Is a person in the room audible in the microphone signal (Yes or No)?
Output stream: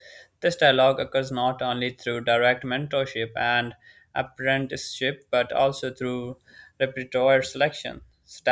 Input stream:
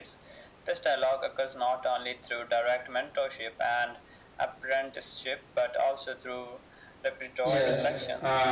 Yes